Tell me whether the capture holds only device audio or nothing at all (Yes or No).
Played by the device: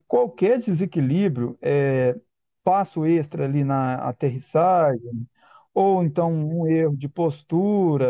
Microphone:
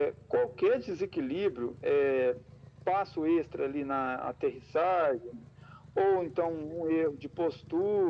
Yes